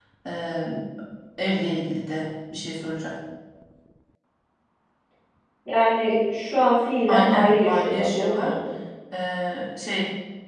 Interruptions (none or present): present